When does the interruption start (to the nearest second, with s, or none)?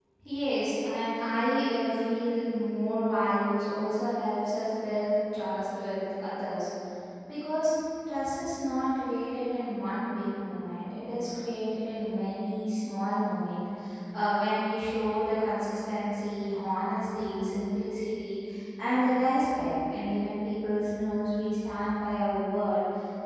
none